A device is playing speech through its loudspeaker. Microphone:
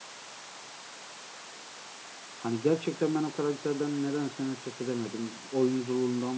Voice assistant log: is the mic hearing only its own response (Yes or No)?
No